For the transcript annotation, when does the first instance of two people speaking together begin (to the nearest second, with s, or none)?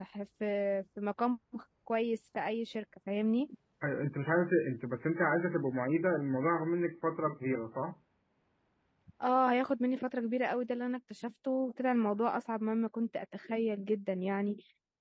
none